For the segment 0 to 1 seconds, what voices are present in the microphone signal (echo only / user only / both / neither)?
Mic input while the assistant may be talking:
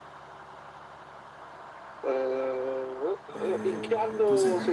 neither